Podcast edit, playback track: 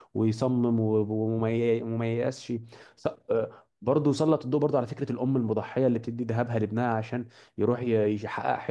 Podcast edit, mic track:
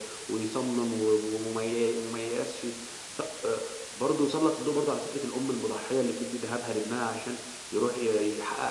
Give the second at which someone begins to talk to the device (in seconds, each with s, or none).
none